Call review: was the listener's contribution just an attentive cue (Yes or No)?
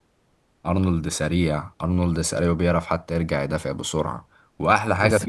Yes